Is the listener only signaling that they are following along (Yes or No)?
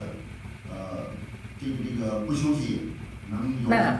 No